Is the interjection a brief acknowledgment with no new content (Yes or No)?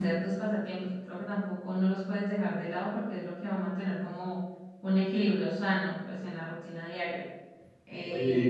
No